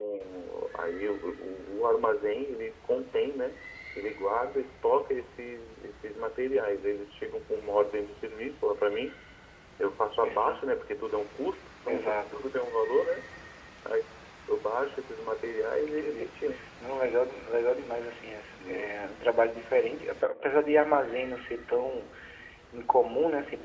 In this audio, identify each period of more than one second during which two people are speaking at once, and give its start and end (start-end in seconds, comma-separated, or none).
none